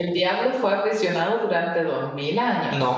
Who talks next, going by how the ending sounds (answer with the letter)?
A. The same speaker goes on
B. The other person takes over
A